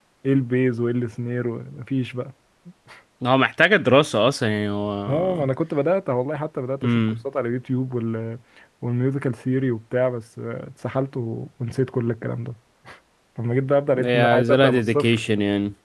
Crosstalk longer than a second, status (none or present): present